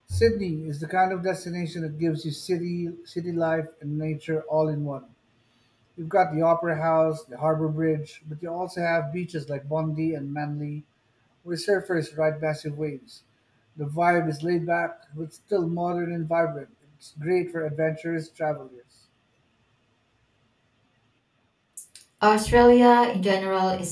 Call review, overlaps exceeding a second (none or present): none